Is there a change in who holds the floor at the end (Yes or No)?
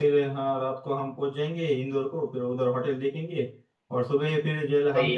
No